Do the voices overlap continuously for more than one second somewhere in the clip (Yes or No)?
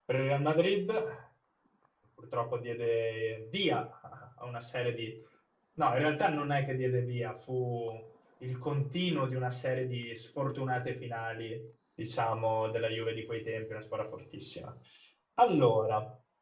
No